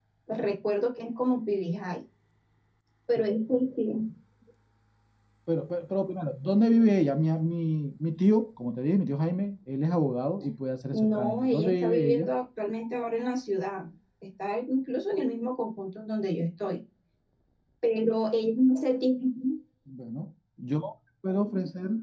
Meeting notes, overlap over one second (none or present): present